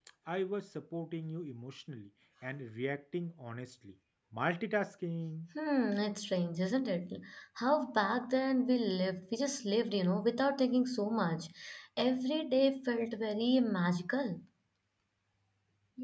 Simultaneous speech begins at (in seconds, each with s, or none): none